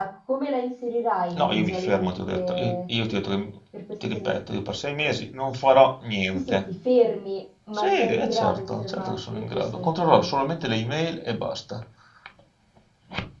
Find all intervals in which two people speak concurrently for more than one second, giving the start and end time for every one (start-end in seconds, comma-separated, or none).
1.4-2.7, 7.8-10.3